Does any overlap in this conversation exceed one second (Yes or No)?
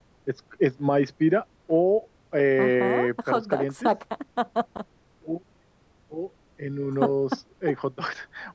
Yes